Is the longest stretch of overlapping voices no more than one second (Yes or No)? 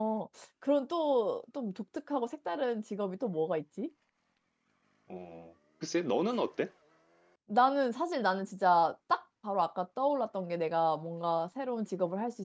Yes